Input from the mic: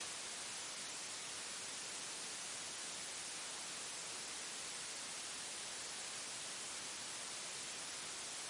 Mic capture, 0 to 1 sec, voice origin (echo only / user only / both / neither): neither